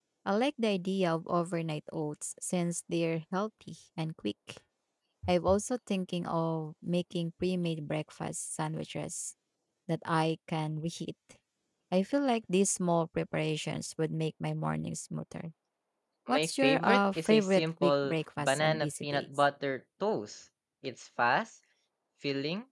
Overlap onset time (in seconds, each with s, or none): 16.3 s